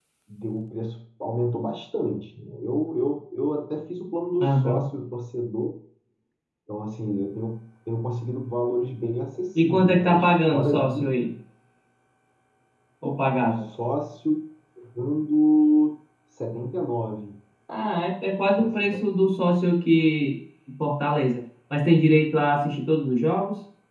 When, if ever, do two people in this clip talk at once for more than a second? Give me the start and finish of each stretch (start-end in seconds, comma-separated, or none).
9.6-11.0